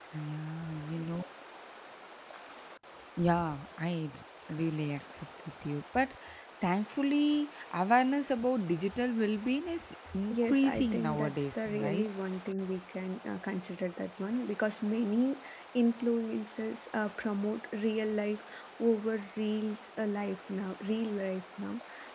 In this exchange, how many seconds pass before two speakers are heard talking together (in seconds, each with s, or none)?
10.3 s